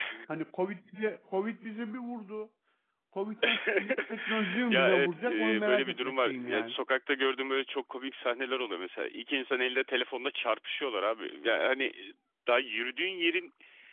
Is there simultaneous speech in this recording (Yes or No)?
Yes